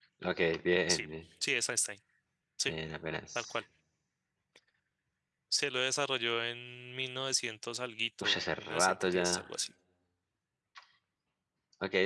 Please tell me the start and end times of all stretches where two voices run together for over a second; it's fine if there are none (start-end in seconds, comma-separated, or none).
8.2-9.5